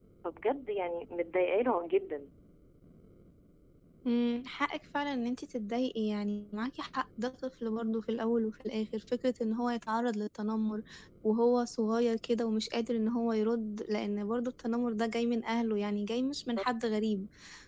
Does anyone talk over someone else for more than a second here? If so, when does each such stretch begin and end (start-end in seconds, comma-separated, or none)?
none